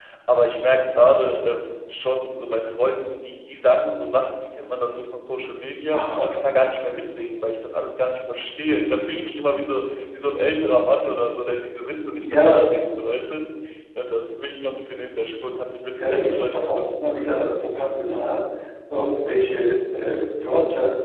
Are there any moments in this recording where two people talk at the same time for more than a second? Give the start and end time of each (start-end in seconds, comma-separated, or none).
16.0-17.3